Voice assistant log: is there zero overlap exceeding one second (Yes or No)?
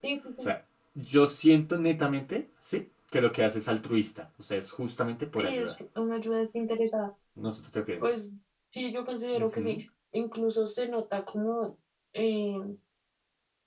Yes